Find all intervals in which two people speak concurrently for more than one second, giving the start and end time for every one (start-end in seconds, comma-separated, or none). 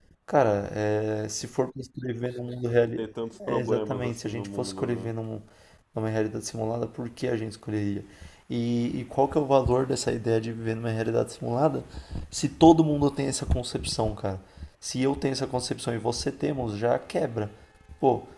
3.5-5.1